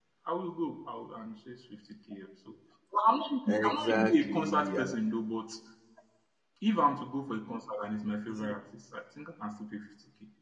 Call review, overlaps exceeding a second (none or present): present